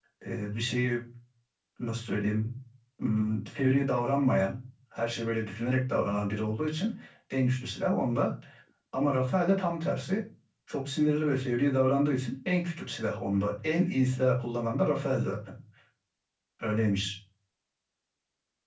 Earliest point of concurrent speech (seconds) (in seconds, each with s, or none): none